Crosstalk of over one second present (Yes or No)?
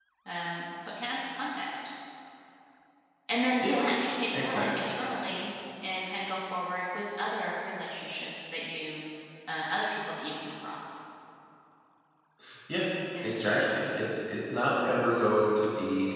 No